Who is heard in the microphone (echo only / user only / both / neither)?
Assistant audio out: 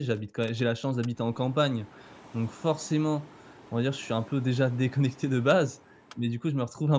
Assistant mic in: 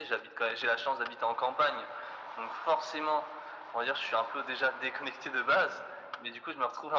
echo only